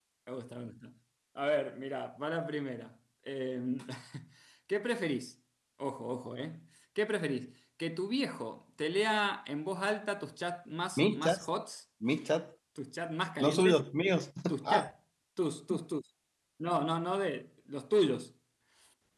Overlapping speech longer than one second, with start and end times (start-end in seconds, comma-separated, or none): none